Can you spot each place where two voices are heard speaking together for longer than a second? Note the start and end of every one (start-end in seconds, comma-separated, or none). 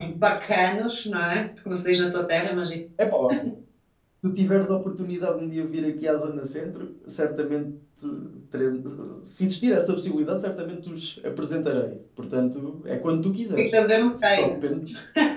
none